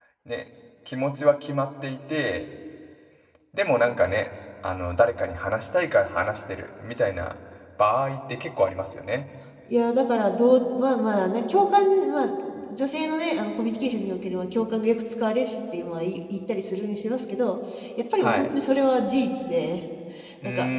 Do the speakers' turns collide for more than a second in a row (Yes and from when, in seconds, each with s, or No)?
No